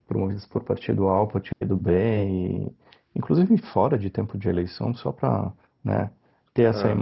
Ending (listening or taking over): listening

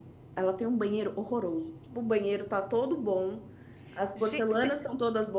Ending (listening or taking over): listening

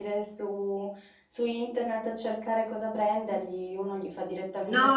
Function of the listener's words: taking over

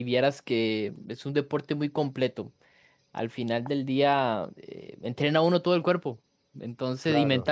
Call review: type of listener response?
listening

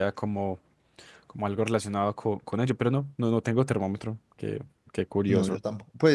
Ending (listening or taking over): taking over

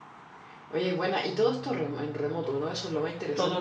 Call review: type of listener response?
taking over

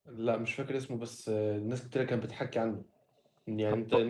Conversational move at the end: listening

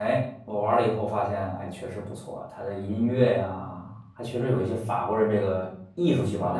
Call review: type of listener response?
listening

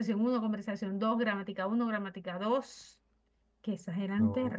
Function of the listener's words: listening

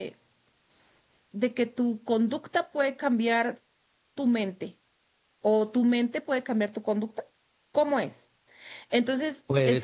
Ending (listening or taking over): listening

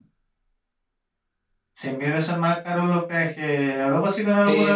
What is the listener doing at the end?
taking over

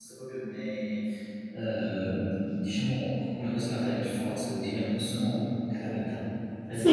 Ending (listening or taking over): taking over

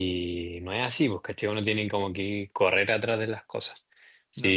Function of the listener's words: listening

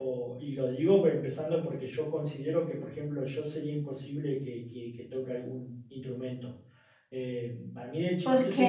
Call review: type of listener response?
listening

